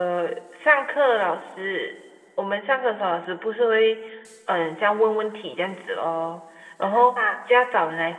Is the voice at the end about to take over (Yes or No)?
No